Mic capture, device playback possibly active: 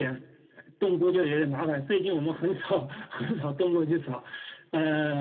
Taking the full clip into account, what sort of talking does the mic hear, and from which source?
echo only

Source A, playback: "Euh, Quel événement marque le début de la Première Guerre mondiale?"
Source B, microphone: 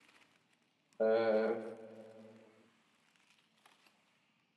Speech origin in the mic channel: user only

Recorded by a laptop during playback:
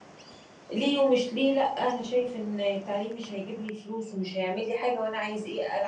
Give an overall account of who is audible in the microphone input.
user only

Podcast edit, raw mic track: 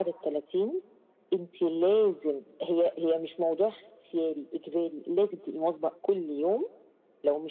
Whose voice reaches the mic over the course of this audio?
echo only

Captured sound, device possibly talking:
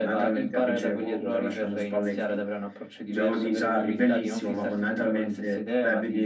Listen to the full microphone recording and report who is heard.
echo only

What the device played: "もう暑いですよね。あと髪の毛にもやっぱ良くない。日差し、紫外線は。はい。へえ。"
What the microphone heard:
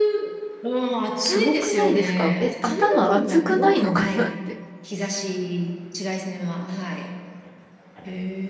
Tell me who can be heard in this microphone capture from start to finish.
both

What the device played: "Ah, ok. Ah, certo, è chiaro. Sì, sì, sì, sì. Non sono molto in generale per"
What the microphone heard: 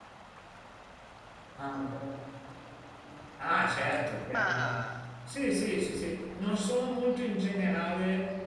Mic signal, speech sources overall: both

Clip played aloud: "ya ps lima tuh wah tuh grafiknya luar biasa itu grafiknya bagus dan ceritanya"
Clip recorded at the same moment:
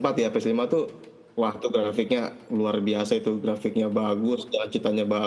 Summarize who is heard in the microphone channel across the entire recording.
echo only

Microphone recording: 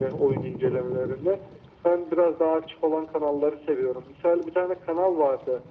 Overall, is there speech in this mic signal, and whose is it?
echo only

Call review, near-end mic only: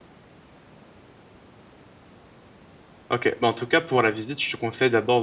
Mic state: user only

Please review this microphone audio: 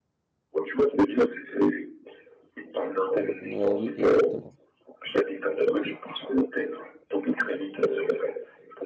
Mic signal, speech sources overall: both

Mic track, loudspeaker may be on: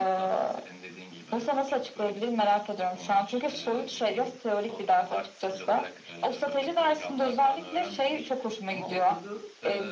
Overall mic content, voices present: echo only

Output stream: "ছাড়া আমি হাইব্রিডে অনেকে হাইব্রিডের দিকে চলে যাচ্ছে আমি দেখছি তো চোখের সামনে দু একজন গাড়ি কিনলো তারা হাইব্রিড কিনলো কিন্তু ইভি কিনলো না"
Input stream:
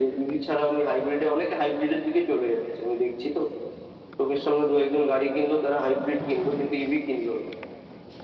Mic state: echo only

